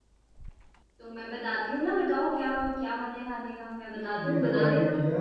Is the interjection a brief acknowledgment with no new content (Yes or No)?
No